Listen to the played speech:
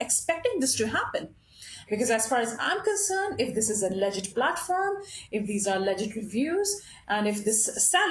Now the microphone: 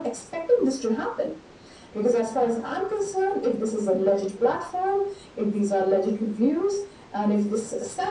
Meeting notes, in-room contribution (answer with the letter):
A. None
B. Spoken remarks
A